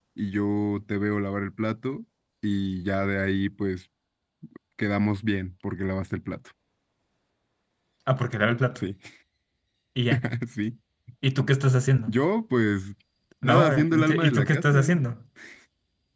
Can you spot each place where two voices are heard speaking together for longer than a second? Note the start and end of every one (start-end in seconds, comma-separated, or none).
13.4-14.9